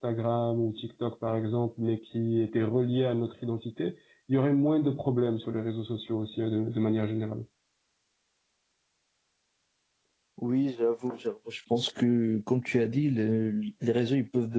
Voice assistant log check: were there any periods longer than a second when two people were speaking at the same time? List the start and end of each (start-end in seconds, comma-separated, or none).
none